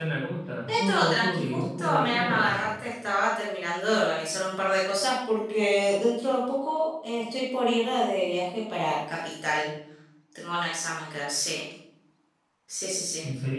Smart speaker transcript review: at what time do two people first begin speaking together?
1 s

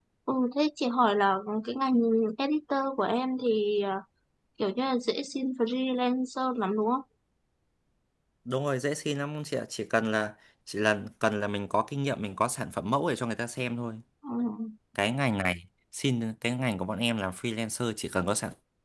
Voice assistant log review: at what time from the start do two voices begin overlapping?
none

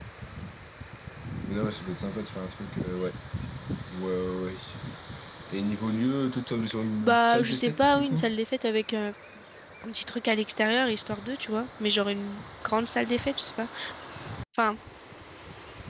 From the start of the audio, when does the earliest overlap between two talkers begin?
7 s

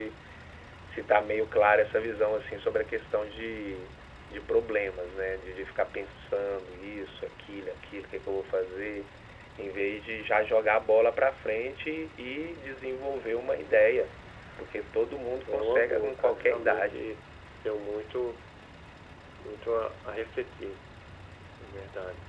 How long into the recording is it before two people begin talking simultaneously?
15 s

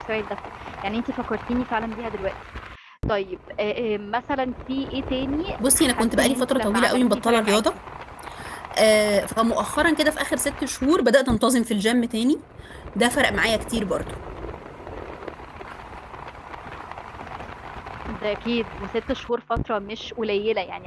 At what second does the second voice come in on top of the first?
6 s

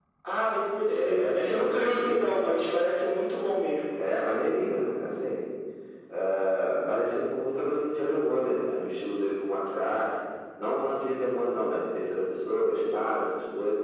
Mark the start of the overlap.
1 s

